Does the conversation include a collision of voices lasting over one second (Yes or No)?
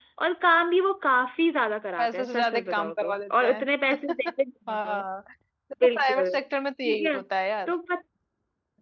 Yes